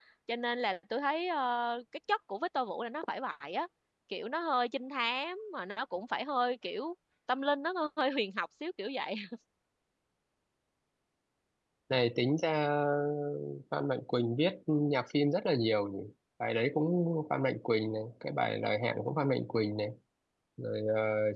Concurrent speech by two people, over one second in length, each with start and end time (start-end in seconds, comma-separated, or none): none